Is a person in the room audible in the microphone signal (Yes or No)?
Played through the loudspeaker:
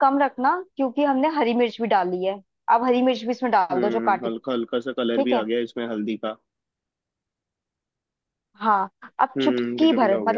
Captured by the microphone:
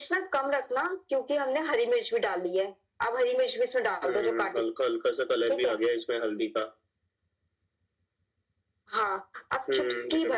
No